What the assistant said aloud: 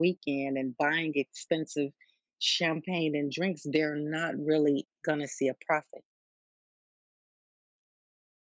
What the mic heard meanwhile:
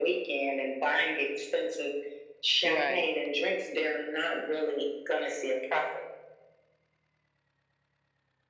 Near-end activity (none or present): present